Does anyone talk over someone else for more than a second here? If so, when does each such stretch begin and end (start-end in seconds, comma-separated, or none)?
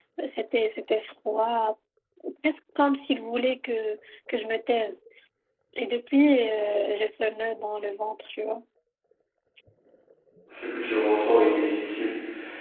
none